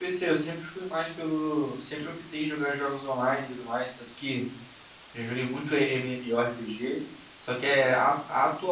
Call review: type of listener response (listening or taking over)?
listening